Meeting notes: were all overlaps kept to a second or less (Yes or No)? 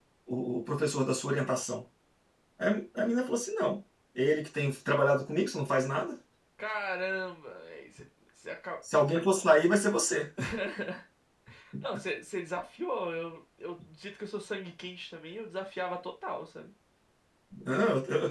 Yes